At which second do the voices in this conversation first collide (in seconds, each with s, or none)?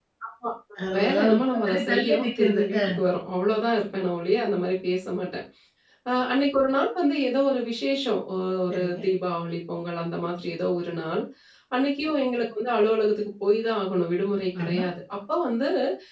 0.9 s